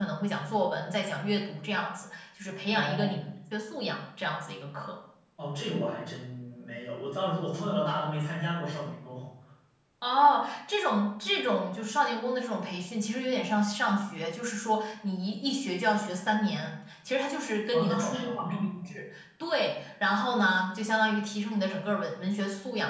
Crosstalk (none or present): present